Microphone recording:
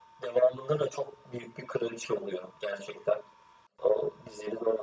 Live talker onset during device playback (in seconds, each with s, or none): none